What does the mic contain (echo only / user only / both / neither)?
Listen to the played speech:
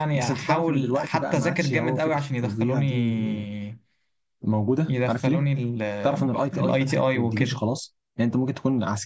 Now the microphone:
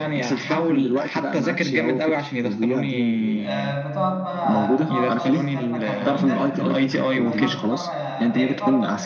both